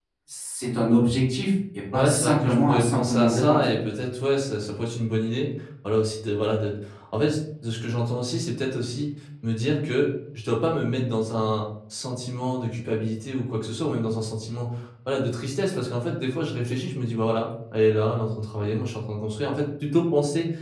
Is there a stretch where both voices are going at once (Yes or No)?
Yes